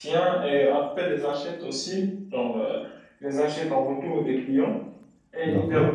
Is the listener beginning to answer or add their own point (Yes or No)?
No